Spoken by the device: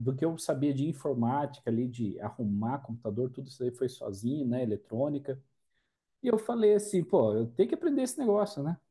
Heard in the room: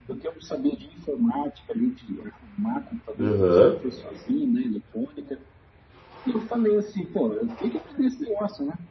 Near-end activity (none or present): present